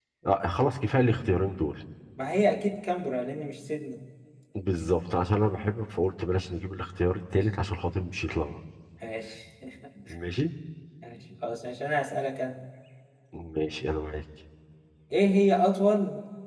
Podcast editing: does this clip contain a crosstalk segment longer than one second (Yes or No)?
No